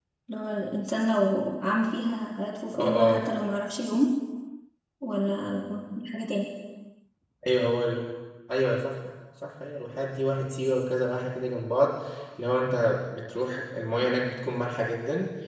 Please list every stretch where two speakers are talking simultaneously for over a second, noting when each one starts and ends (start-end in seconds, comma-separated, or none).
none